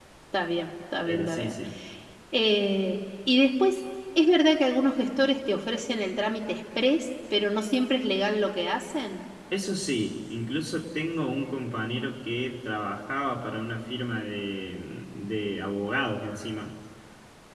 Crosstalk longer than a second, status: none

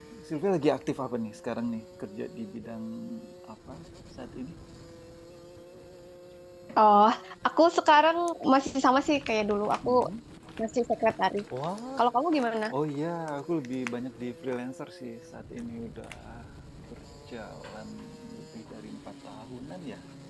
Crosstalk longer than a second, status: none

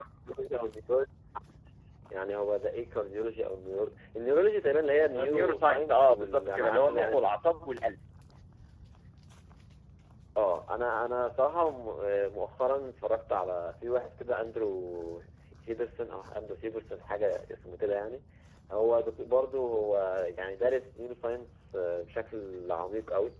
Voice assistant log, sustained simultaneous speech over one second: present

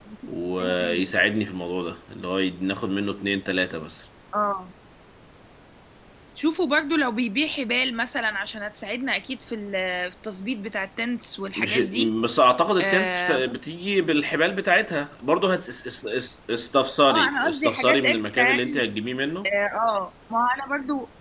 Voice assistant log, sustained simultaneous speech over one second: present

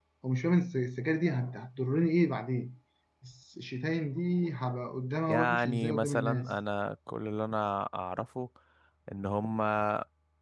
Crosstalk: present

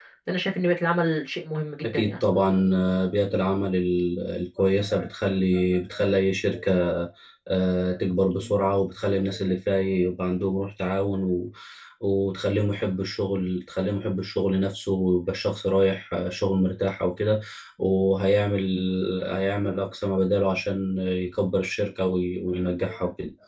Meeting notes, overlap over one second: none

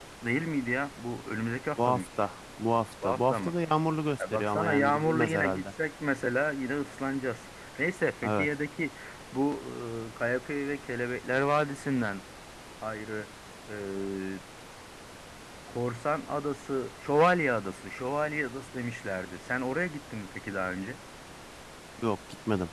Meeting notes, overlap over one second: present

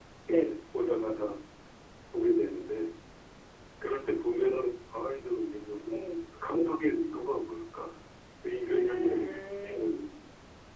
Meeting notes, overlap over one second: present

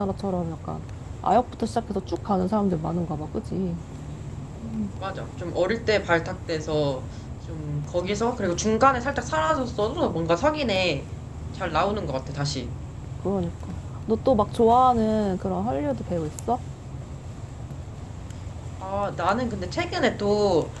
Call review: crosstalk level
none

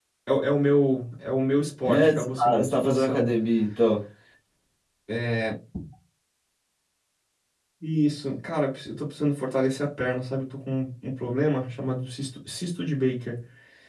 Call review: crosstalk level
present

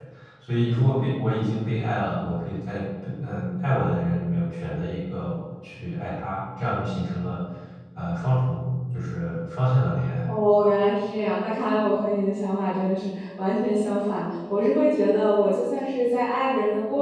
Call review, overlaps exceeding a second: none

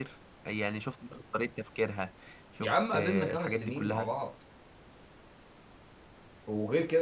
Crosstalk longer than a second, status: present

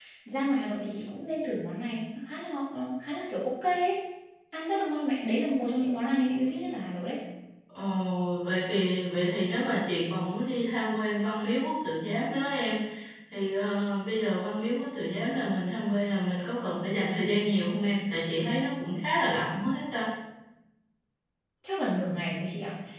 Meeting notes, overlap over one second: none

